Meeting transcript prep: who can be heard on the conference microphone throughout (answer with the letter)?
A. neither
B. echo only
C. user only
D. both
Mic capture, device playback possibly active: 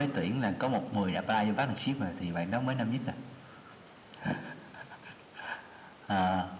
B